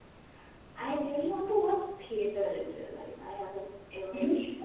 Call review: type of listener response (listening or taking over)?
taking over